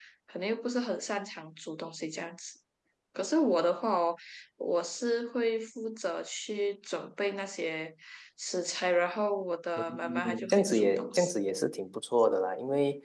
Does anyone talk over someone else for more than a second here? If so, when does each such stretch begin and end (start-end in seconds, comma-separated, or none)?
10.0-11.3